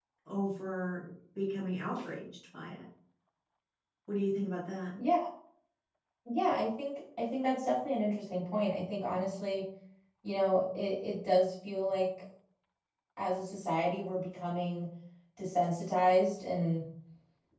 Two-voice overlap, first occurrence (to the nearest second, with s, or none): none